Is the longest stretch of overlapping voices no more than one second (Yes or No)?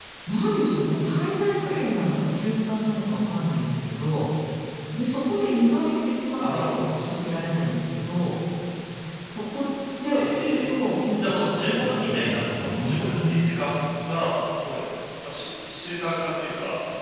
No